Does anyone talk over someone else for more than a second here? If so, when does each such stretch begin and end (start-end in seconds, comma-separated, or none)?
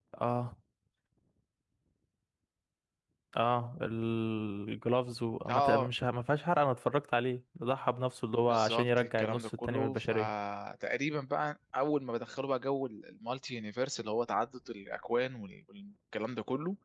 8.5-10.3